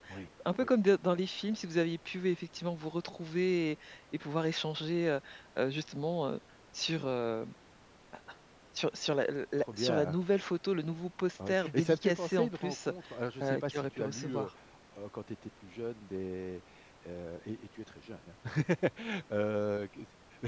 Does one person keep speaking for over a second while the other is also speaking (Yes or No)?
Yes